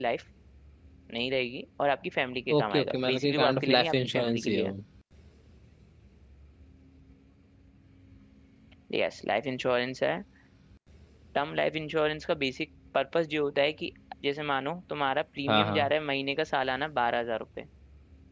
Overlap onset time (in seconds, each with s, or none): 2.5 s